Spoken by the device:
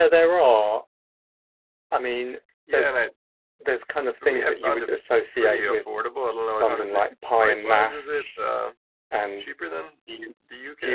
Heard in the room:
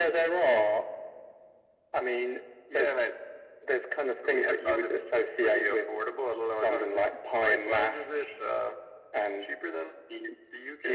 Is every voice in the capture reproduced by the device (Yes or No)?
Yes